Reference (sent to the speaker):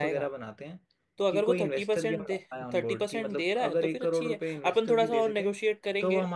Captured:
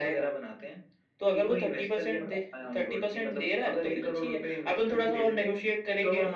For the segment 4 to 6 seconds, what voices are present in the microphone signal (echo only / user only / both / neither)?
echo only